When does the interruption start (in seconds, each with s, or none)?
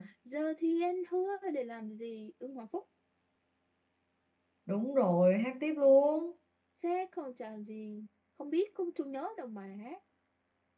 none